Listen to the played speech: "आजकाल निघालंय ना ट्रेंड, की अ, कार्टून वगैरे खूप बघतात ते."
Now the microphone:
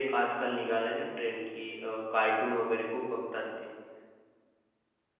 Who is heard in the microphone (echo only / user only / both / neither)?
echo only